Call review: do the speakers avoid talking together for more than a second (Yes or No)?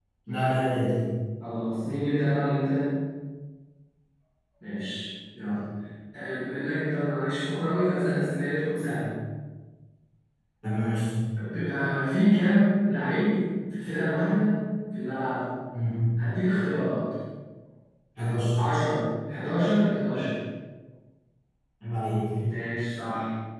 Yes